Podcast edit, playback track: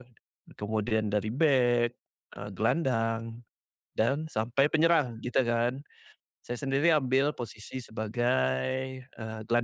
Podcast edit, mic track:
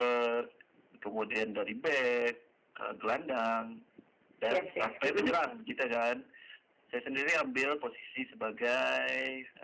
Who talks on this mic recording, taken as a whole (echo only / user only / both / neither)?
both